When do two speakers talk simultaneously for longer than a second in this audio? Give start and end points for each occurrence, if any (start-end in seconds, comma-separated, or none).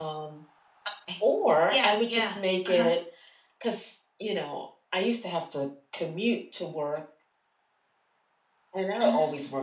1.7-2.9